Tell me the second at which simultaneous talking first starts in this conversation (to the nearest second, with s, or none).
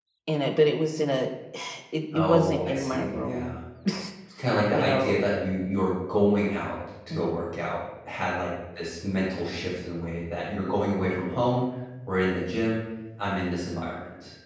2 s